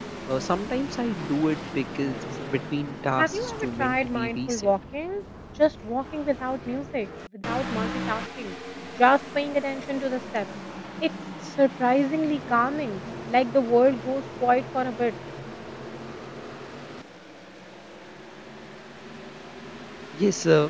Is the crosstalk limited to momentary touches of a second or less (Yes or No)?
No